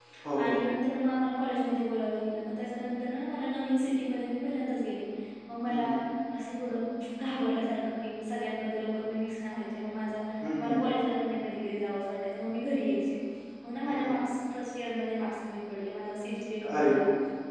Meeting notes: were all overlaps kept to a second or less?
Yes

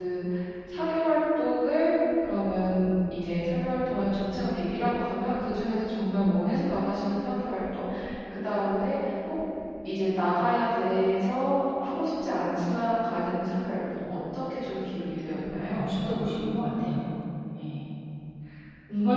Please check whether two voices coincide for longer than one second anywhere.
No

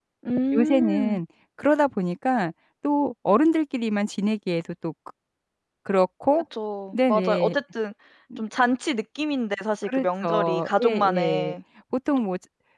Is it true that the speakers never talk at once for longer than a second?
No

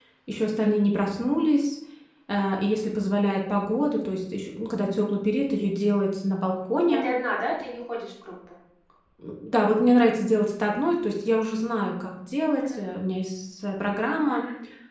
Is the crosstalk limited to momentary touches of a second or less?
Yes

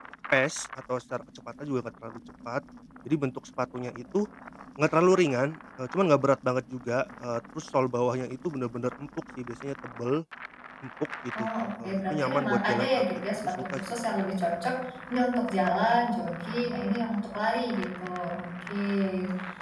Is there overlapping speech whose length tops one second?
Yes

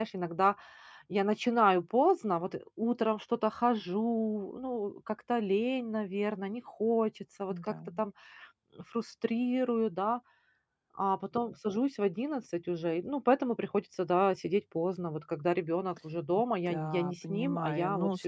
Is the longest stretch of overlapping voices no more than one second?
No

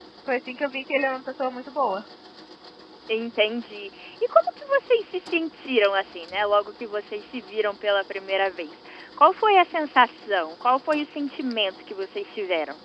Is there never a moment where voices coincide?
Yes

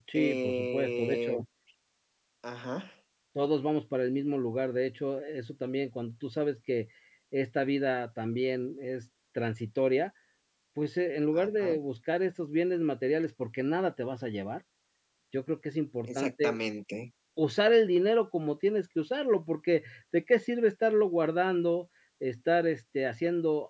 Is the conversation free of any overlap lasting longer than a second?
No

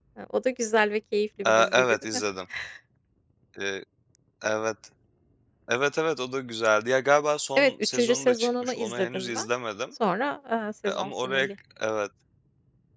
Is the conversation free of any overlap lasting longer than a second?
No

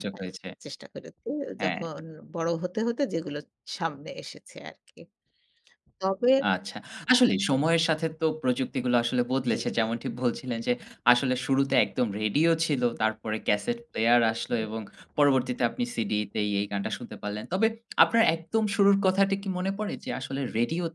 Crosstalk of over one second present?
No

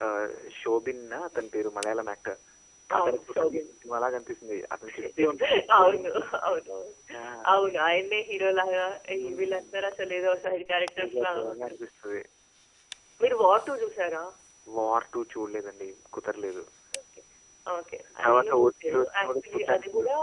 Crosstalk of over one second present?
Yes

